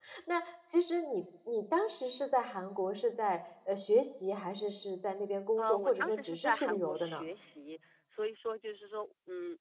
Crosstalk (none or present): present